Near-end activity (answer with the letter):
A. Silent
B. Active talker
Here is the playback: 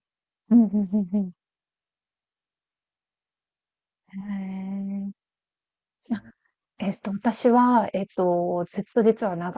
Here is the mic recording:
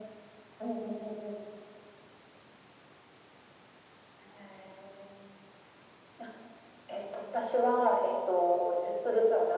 A